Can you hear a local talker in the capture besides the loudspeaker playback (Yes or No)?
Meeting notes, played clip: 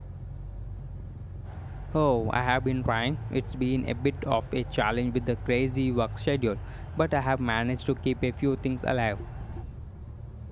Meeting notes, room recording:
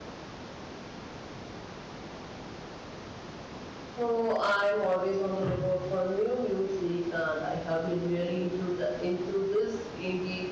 Yes